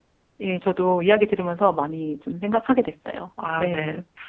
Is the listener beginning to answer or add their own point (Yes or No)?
Yes